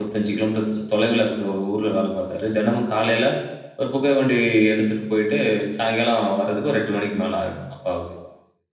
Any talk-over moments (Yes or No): No